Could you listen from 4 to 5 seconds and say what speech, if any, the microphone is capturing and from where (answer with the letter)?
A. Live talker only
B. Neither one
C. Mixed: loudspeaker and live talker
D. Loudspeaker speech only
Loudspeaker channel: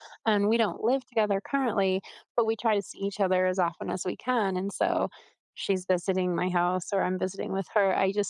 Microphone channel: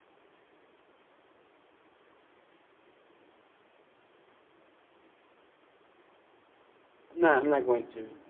B